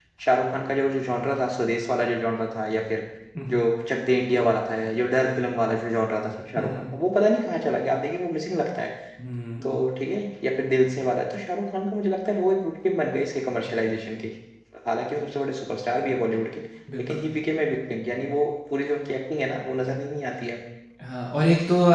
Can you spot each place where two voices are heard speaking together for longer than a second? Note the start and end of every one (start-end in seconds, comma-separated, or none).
none